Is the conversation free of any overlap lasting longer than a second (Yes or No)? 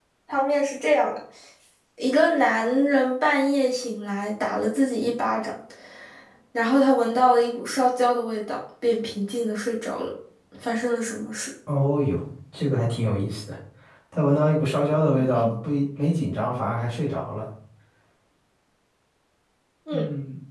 Yes